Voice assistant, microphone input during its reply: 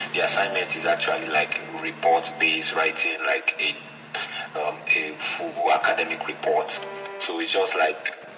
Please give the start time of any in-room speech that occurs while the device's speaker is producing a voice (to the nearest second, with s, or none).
none